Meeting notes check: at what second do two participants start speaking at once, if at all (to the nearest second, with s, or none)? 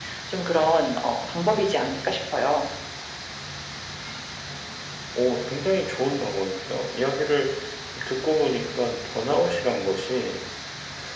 none